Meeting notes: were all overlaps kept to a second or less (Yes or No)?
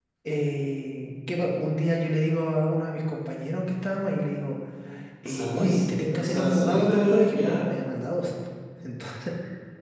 No